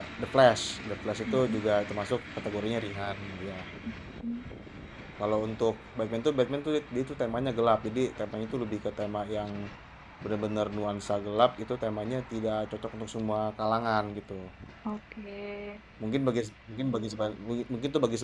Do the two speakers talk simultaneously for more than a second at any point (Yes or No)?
No